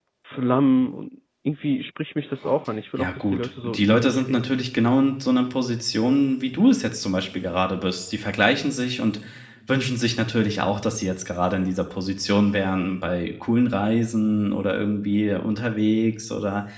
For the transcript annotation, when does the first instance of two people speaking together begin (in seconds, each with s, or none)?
3.0 s